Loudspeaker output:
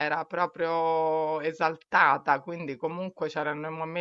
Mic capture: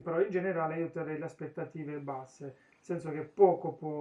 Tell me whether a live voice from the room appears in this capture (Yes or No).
Yes